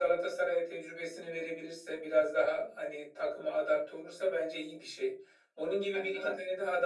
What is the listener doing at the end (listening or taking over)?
listening